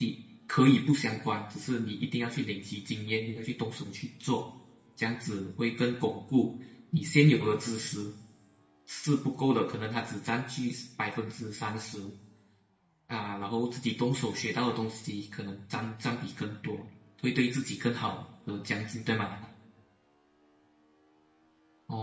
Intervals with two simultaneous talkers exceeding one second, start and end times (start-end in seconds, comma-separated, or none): none